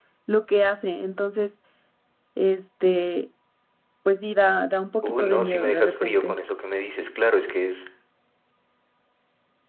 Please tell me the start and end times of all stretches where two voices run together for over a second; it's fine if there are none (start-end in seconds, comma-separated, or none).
5.0-6.3